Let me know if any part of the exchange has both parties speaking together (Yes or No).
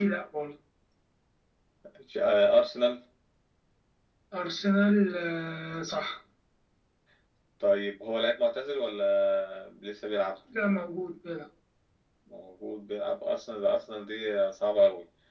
No